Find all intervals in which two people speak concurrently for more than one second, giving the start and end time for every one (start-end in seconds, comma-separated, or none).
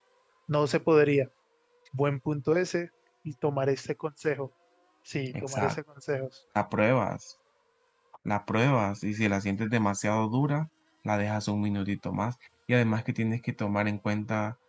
none